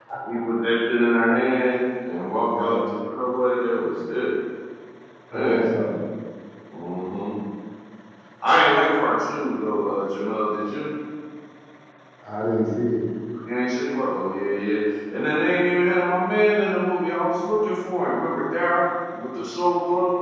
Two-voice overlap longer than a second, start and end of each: none

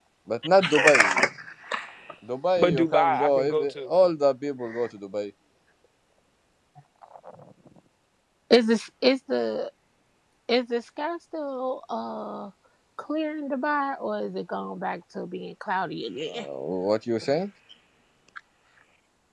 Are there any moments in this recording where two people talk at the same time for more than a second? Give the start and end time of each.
2.6-3.9

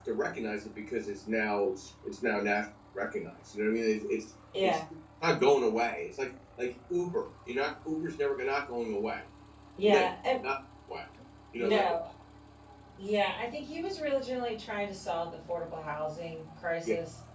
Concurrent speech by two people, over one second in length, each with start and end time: none

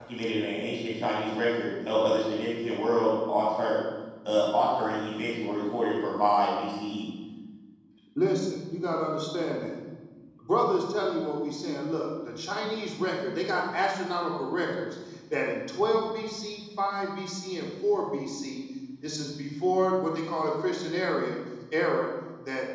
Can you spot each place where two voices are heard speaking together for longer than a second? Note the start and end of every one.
none

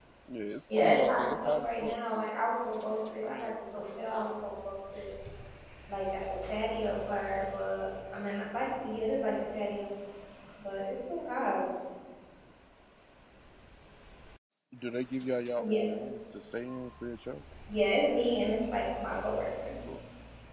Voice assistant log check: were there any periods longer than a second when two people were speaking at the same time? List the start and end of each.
0.8-2.3

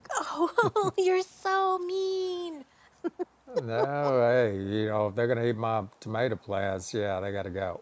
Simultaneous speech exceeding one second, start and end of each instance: none

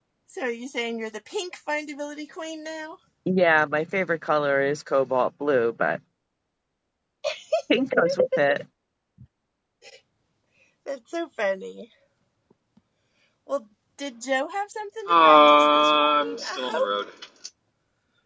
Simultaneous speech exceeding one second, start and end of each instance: 15.1-16.8

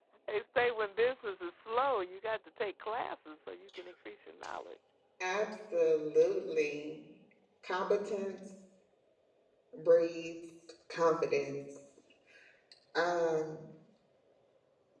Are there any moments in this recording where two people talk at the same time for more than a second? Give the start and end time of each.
none

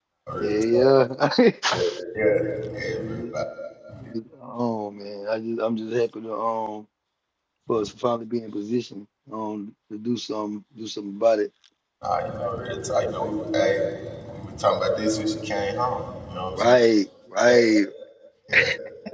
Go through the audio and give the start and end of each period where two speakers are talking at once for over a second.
none

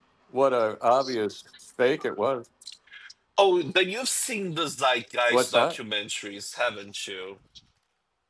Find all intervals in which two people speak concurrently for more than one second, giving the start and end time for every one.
none

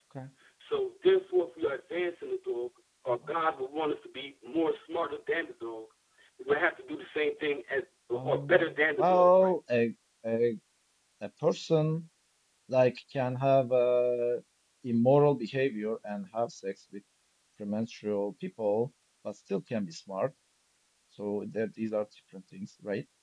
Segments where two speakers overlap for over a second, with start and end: 8.1-9.5

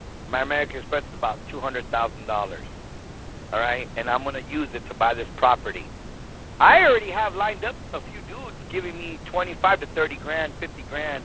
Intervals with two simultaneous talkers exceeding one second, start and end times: none

